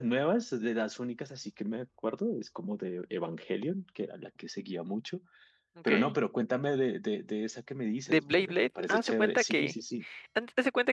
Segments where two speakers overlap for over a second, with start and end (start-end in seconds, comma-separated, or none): 8.1-9.7